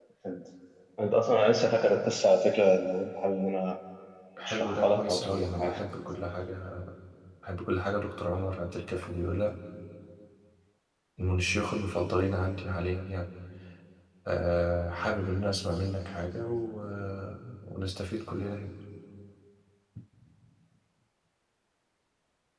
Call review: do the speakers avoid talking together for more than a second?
No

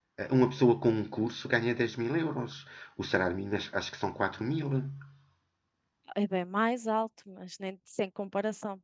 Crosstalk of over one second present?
No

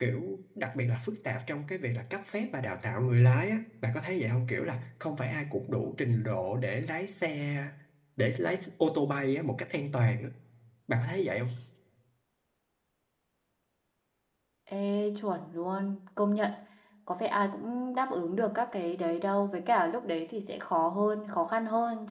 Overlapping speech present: No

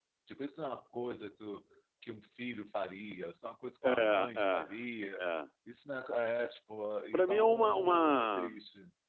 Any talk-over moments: Yes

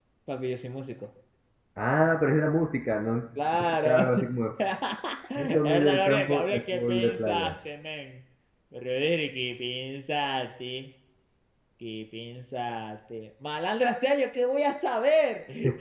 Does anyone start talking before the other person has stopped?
Yes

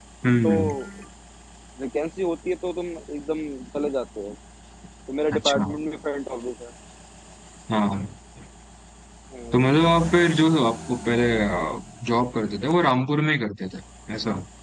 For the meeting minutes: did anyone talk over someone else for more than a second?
No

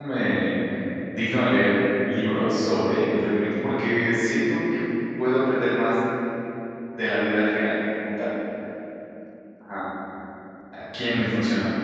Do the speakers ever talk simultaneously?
No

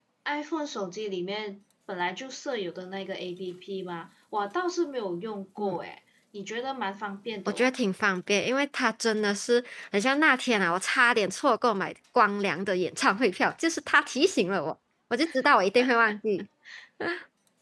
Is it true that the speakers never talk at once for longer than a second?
Yes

